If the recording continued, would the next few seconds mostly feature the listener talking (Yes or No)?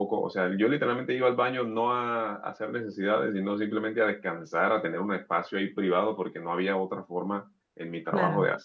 No